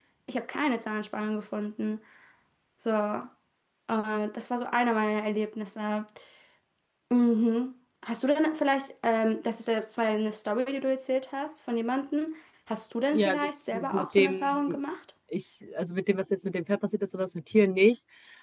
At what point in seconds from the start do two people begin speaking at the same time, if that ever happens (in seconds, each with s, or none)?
13.1 s